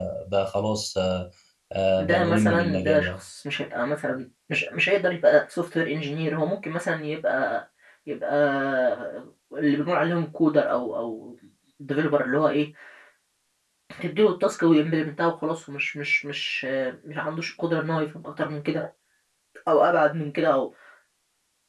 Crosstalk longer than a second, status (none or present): present